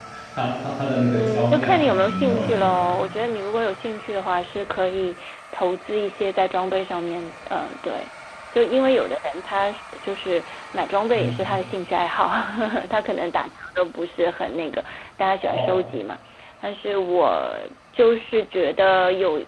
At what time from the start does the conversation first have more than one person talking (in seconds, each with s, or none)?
1.1 s